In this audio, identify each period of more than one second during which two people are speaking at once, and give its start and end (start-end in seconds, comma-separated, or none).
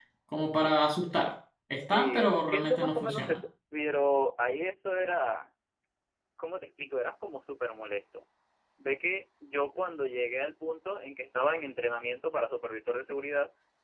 1.8-3.4